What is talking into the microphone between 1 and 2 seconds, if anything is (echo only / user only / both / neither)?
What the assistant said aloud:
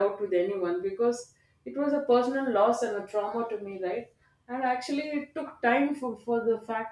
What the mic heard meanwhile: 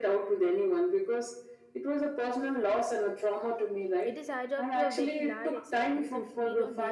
echo only